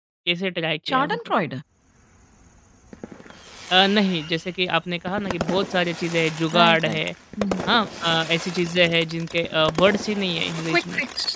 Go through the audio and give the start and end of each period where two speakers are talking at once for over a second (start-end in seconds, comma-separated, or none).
none